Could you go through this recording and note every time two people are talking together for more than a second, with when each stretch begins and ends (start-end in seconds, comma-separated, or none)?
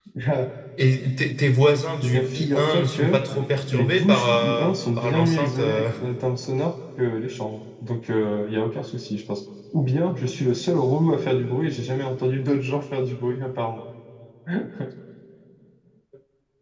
2.0-3.2, 3.7-5.9